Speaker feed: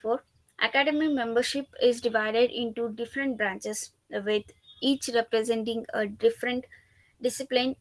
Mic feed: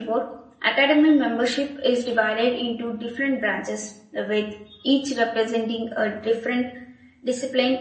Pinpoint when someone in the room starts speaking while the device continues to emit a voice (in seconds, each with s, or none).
none